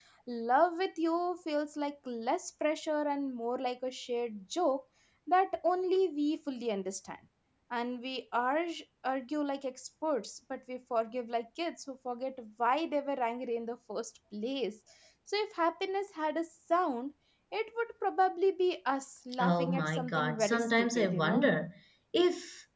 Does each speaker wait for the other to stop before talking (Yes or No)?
No